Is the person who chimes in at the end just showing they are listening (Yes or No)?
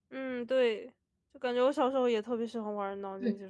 No